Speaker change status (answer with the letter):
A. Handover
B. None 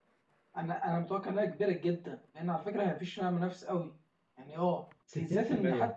B